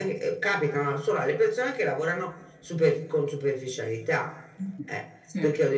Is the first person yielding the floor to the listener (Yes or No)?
No